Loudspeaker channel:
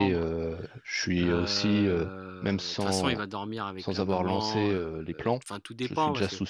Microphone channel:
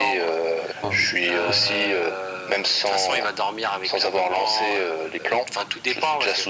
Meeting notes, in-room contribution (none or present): present